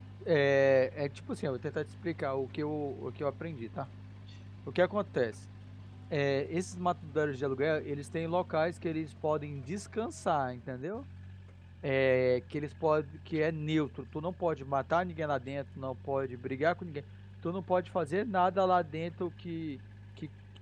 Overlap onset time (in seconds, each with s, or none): none